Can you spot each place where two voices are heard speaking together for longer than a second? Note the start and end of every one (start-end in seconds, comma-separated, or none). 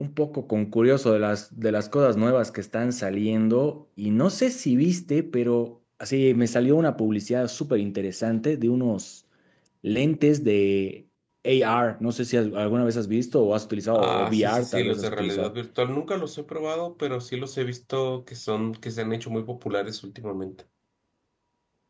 13.9-15.5